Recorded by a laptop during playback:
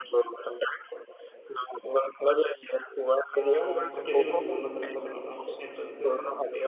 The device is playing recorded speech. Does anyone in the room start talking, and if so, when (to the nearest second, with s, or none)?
3 s